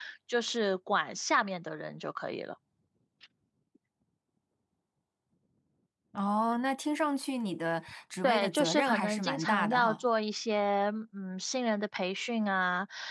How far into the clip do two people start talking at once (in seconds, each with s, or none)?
8.2 s